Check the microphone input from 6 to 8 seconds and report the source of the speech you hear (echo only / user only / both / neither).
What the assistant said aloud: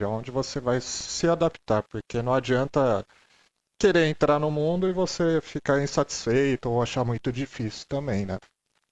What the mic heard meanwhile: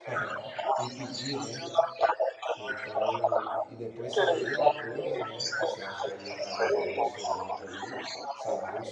both